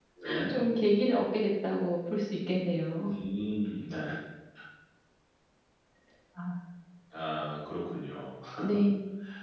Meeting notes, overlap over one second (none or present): none